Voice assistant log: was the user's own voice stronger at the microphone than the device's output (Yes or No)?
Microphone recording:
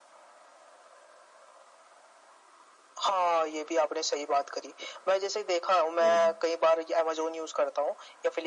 No